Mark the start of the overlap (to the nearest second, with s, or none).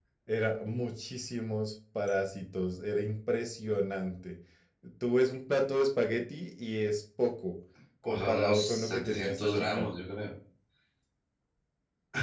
8 s